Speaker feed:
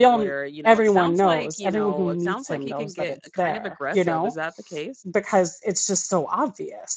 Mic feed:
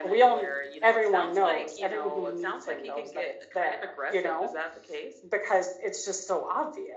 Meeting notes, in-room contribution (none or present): none